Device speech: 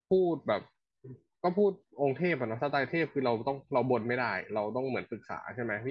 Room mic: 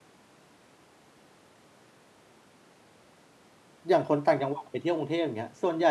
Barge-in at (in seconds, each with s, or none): 3.9 s